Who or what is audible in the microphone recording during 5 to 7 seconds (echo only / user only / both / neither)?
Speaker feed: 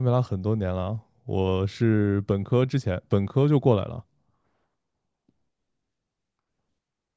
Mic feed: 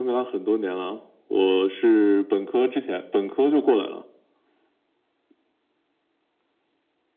neither